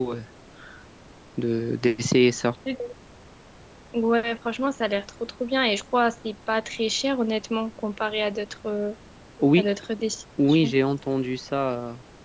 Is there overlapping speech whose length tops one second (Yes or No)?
No